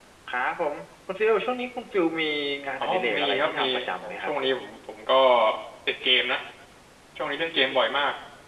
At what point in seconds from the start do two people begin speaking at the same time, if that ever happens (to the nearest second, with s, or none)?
3 s